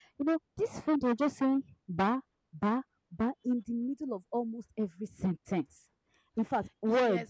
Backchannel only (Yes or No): No